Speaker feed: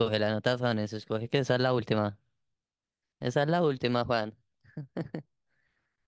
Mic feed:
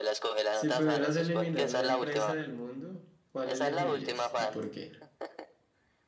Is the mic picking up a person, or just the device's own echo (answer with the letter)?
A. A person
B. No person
A